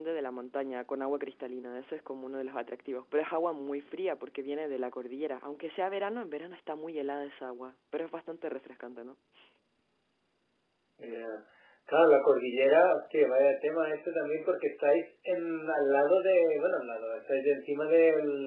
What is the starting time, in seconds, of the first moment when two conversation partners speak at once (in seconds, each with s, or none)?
none